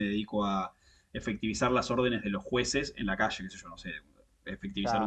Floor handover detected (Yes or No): No